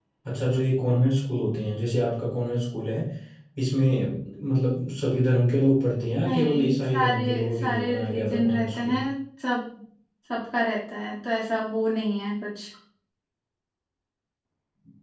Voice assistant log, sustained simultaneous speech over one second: present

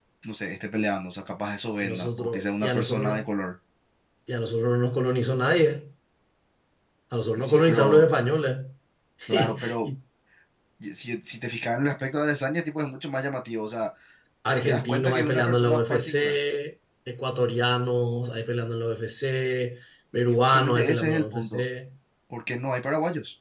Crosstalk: present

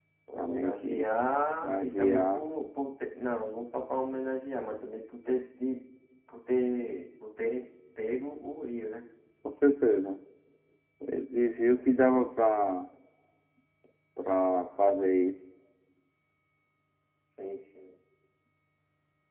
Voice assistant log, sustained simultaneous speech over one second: present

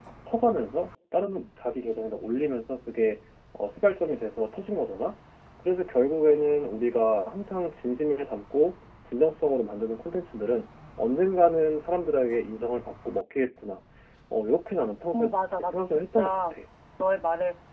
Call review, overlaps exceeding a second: present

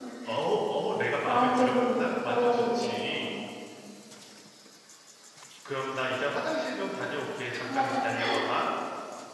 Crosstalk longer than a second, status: present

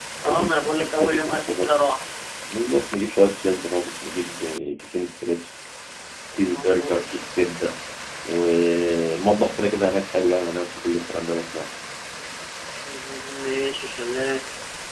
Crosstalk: present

